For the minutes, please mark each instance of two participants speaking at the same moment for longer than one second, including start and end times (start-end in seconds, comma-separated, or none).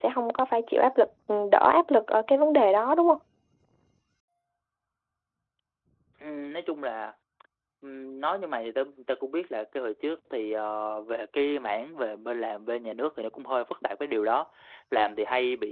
none